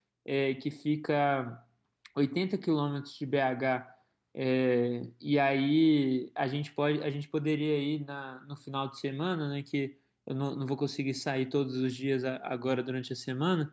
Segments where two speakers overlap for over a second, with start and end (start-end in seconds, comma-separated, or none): none